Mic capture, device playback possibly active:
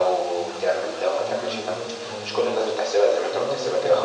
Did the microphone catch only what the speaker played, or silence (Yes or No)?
No